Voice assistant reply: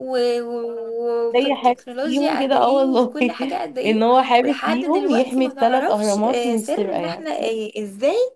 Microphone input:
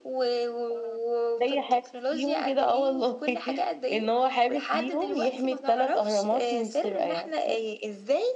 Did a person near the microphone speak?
No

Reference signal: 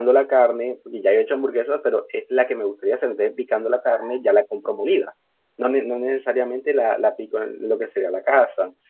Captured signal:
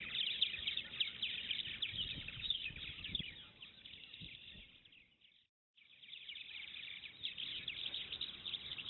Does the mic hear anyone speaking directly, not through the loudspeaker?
No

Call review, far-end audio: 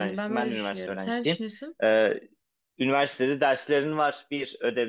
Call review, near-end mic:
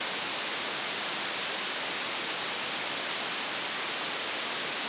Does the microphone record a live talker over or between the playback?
No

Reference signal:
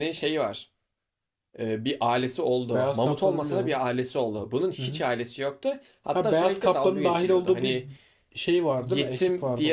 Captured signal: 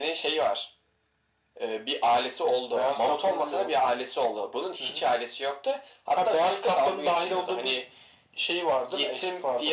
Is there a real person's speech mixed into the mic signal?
No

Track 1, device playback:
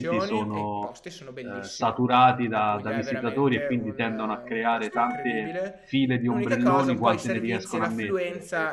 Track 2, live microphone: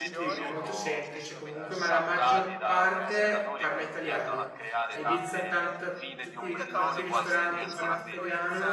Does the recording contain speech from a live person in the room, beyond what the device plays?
Yes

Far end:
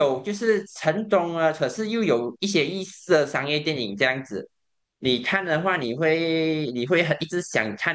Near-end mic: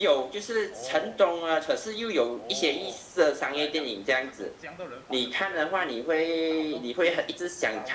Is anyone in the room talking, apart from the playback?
Yes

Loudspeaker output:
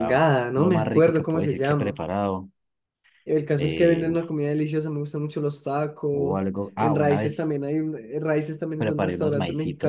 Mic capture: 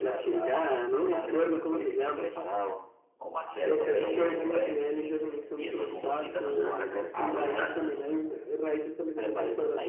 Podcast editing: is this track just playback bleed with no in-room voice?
No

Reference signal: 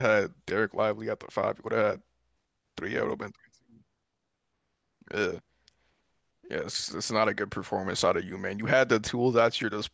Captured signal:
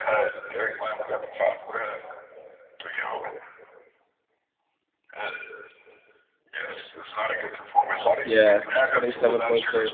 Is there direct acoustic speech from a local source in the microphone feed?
Yes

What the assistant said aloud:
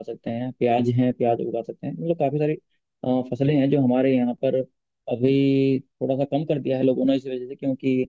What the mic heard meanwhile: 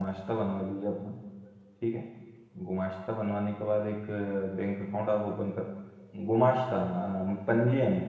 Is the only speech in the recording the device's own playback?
No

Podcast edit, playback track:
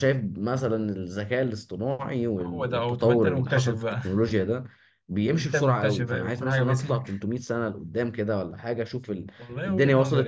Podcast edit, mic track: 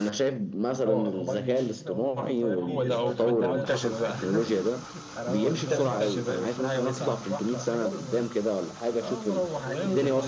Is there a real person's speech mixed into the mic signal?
Yes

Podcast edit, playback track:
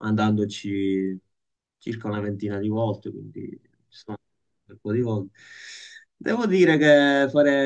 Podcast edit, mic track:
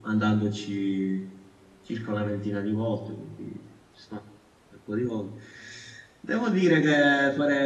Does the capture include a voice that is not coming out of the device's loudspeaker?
No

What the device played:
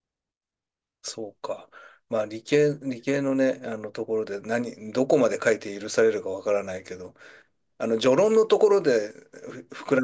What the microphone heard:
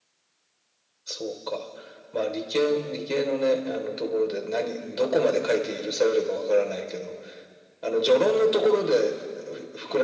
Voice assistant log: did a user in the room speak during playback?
No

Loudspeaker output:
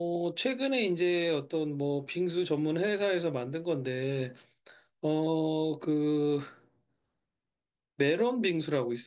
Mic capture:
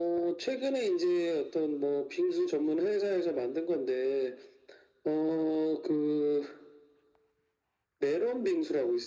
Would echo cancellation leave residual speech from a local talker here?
No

